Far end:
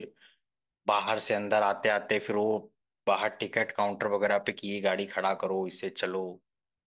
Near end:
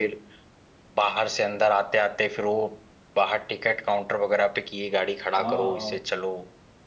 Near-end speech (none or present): present